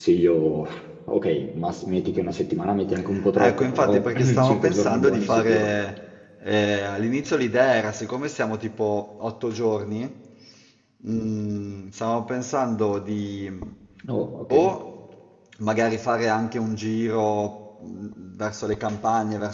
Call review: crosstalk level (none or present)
present